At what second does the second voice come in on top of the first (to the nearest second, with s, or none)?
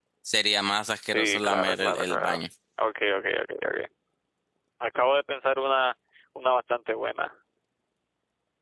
1 s